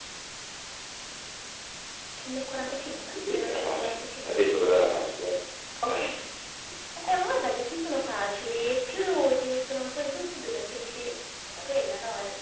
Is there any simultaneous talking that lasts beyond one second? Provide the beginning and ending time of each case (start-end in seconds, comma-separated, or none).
3.1-4.6